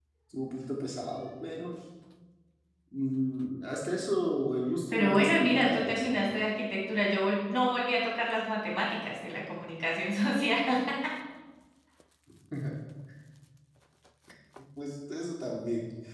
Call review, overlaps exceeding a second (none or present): present